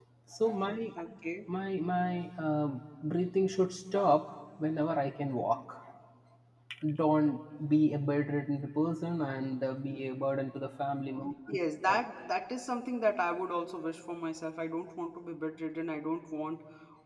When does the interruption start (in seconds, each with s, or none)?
none